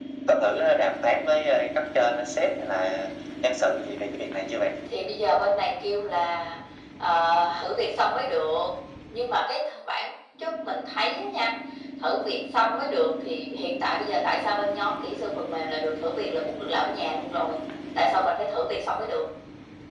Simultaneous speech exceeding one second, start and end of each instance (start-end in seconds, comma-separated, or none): none